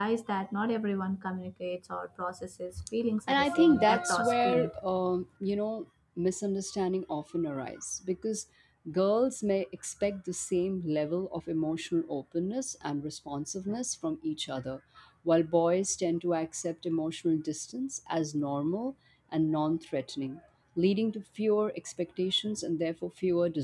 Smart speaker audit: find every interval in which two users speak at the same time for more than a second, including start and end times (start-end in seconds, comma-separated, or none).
3.3-4.7